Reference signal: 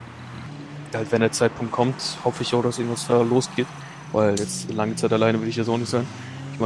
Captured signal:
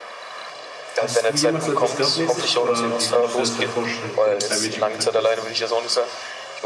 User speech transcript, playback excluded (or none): hast du jemals so etwas gehabt mäßig? Oder wie würdest du dir das halt vorstellen, wenn du mit einem Mädchen Kontakt hast?